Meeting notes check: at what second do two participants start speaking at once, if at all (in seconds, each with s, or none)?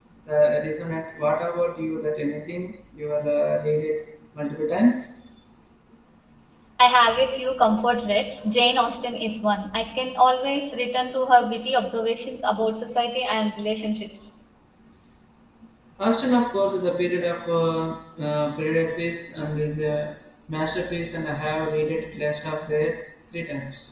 none